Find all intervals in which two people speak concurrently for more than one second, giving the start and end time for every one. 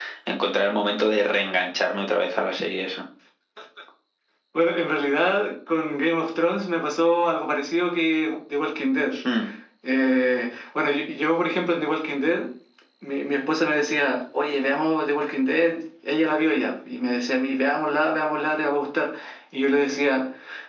none

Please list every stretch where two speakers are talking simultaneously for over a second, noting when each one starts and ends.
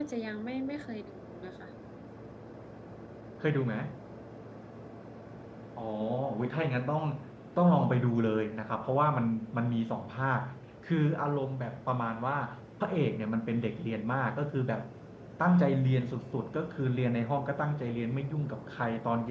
none

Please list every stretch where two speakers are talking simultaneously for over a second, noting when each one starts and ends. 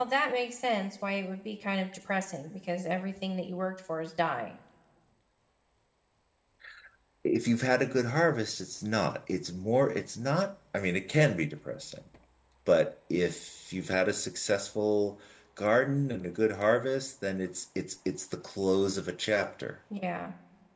none

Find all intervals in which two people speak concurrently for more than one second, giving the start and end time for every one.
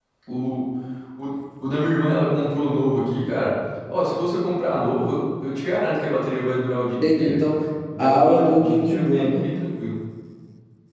8.0-9.4

